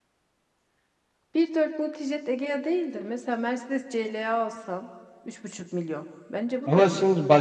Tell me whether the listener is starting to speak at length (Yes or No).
Yes